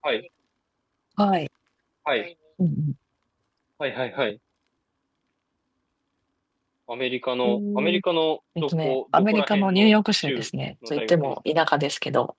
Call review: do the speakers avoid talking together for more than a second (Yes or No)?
No